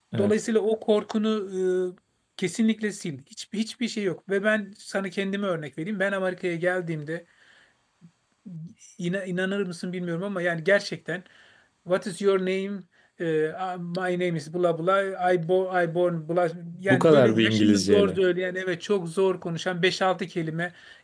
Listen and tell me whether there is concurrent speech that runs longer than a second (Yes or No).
Yes